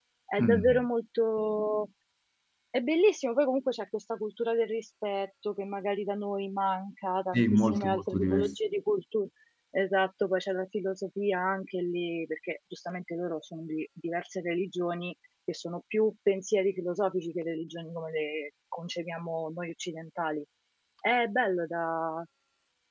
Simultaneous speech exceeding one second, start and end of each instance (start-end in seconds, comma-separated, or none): 7.3-8.6